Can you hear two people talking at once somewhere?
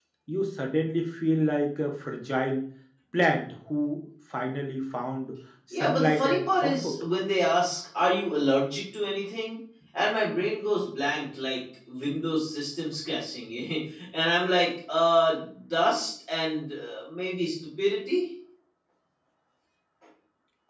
Yes, from 5.7 s

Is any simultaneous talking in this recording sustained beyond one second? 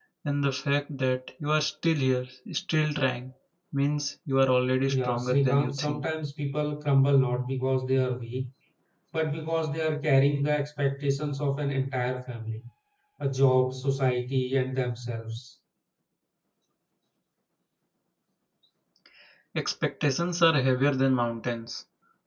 Yes, from 4.9 s

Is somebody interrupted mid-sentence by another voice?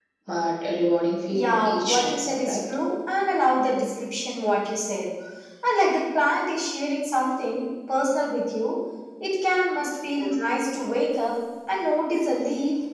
Yes, from 1.3 s

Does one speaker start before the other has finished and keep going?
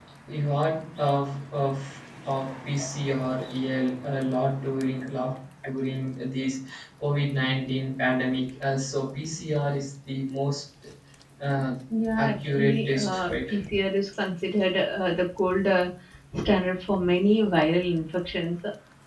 Yes, from 12.2 s

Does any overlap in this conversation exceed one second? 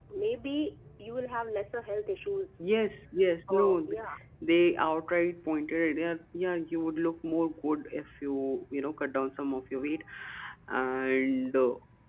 No

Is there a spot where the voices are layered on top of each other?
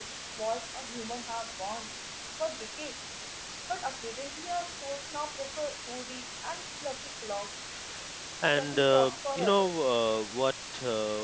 Yes, from 8.5 s

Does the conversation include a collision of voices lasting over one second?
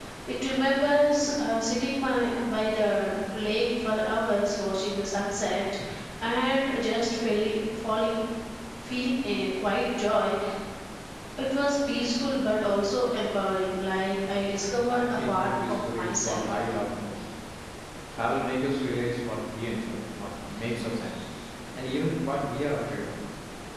Yes, from 14.2 s

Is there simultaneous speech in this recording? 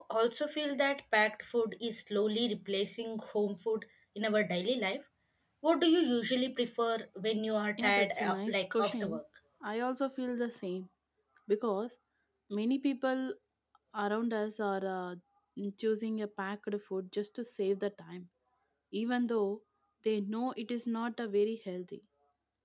Yes, from 7.8 s

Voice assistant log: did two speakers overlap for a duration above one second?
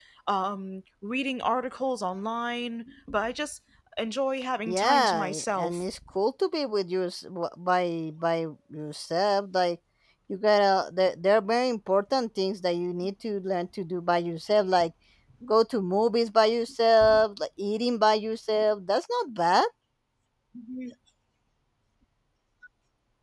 Yes, from 4.7 s

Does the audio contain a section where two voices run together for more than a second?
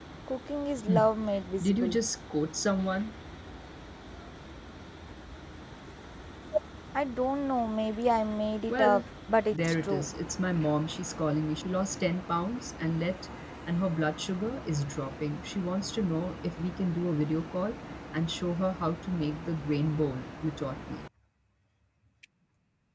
No

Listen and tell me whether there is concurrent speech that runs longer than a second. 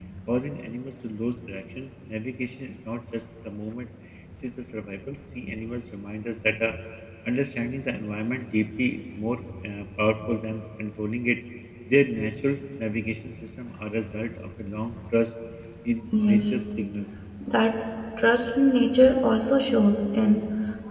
No

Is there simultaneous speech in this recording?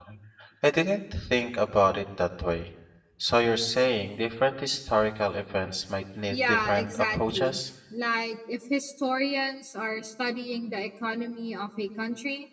Yes, from 6.3 s

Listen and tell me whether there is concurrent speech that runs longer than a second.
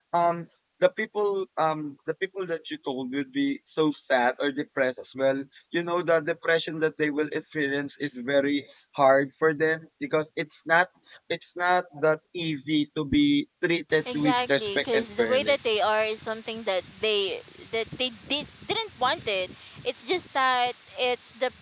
Yes, from 14.0 s

